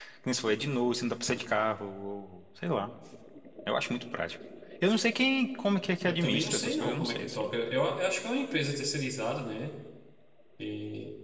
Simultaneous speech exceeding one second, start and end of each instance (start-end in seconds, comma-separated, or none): 6.0-7.5